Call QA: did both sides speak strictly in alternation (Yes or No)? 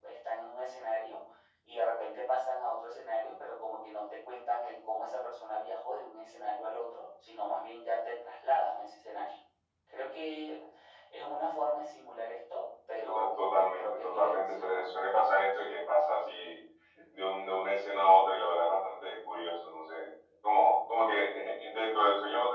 No